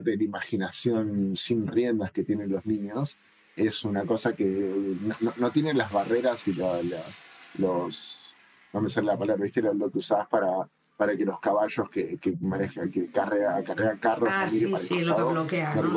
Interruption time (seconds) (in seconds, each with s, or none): 14.2 s